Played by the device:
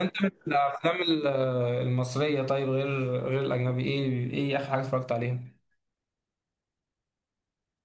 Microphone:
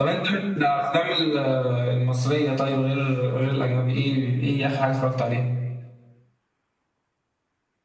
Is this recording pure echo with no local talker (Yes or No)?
Yes